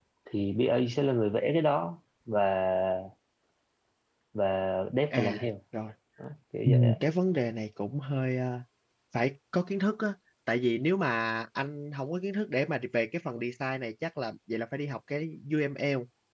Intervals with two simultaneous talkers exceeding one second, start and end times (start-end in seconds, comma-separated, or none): none